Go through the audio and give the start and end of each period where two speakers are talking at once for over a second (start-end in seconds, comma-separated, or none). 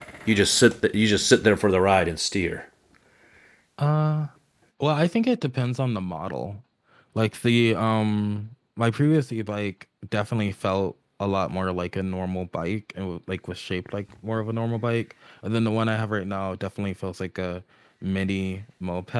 none